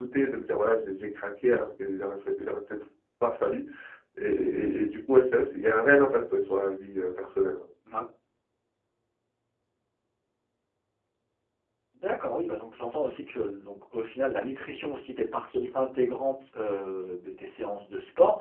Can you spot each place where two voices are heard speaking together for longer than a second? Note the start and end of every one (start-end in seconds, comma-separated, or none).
none